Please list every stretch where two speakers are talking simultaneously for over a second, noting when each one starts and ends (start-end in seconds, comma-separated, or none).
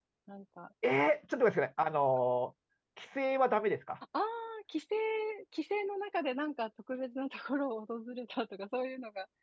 none